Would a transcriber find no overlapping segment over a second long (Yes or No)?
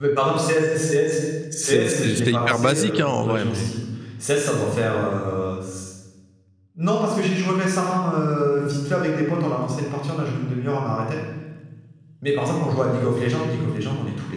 No